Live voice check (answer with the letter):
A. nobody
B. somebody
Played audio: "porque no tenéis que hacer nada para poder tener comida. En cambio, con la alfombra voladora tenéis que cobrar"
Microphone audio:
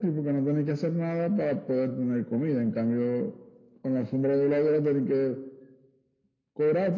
A